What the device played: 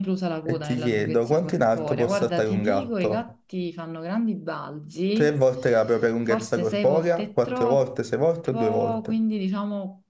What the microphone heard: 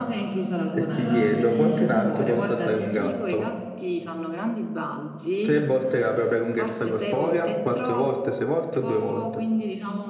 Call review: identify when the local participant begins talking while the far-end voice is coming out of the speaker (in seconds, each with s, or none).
0.9 s